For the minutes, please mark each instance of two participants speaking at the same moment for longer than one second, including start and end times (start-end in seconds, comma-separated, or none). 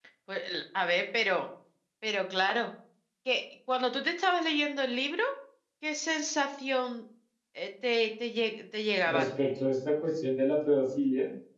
none